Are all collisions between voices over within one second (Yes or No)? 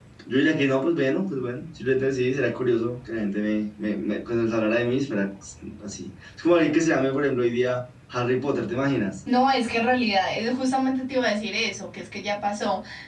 Yes